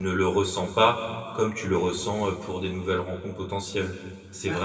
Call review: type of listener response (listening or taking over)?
taking over